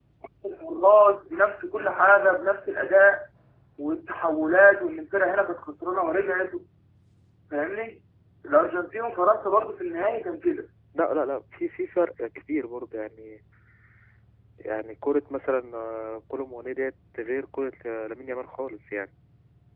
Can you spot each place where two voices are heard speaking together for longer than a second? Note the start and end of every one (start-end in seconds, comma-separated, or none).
none